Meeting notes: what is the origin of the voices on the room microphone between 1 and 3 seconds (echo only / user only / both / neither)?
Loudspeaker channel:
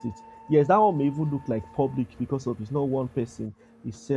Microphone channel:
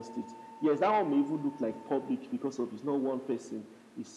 echo only